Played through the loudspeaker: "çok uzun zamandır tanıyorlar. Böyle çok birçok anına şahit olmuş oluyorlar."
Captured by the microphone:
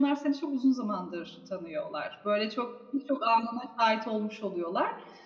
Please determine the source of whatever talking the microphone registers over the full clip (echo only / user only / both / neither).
echo only